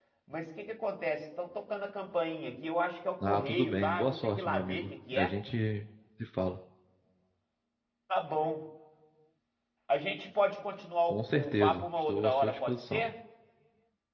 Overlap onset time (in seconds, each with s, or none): 3.2 s